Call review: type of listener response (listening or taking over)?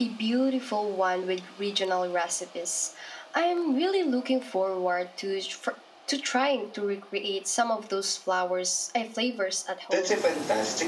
taking over